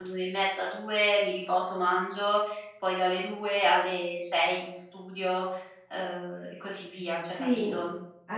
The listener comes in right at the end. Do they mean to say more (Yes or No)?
Yes